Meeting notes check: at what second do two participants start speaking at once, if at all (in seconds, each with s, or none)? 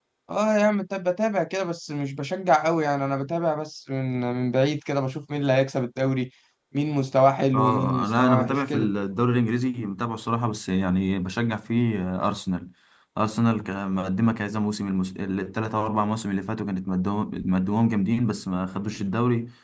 7.5 s